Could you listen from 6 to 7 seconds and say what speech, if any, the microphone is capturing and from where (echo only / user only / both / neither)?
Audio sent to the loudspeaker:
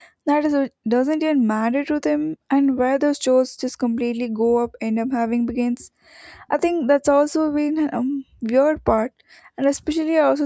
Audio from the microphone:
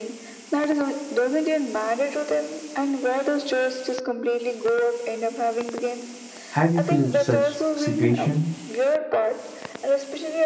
both